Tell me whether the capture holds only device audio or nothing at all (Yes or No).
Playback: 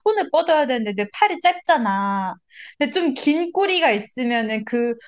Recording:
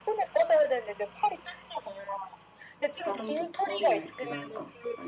No